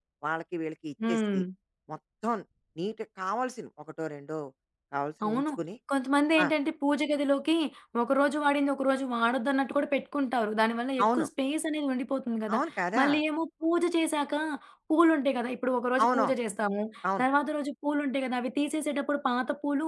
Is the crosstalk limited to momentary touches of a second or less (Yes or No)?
Yes